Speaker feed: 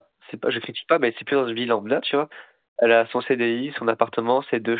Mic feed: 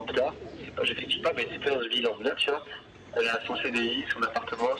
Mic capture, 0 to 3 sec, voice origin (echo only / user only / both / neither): echo only